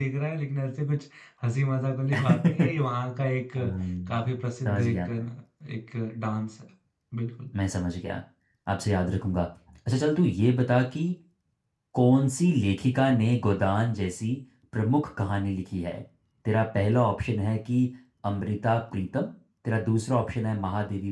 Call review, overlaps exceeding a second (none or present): present